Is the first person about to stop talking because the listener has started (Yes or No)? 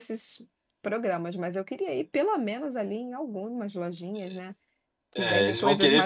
Yes